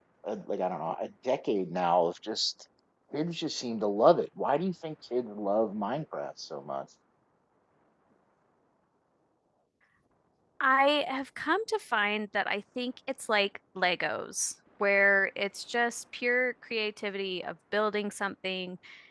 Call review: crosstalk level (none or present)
none